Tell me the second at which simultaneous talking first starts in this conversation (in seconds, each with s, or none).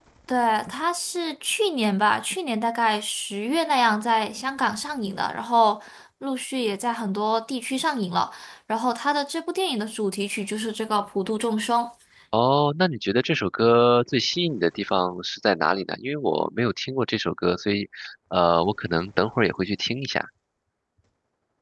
none